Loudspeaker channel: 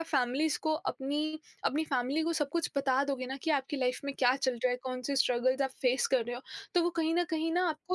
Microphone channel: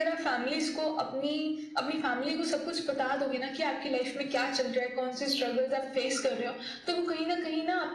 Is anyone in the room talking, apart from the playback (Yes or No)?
No